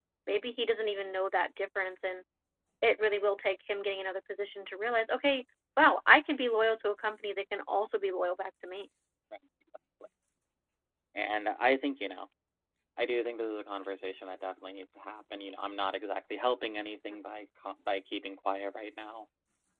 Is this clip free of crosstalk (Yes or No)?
Yes